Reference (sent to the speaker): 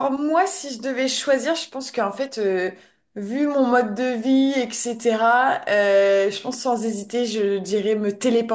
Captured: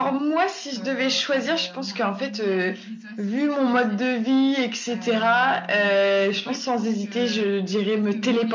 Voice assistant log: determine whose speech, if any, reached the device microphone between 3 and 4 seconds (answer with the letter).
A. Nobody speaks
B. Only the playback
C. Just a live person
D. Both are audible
D